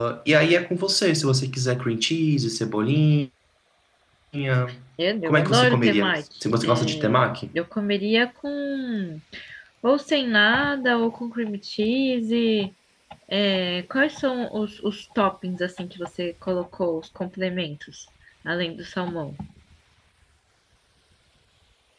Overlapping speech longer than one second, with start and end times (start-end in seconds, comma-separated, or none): 5.2-7.3